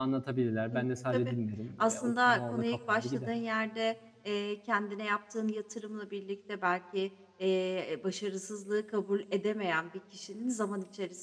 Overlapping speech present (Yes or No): Yes